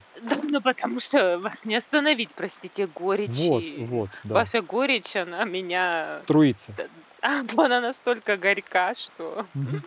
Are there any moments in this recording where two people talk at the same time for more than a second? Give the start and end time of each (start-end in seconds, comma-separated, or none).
3.3-4.5